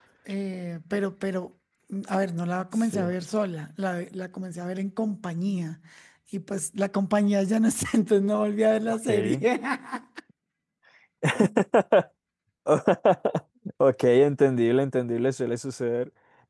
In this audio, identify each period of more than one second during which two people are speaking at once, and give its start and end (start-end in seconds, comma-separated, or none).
none